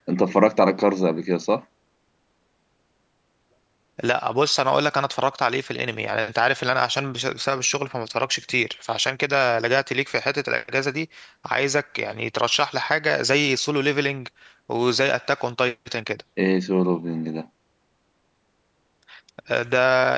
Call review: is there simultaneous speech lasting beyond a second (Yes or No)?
No